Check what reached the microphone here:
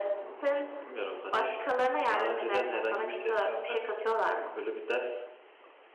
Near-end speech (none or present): none